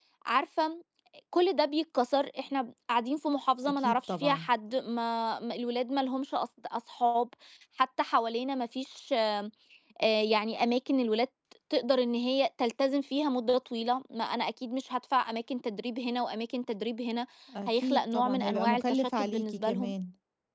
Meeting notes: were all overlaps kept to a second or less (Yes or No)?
No